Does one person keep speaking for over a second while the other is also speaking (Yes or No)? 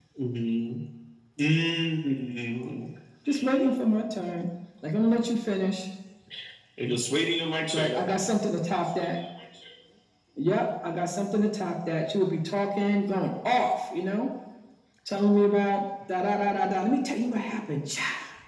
No